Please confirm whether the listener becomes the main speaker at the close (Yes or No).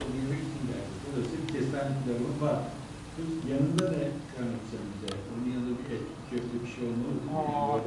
Yes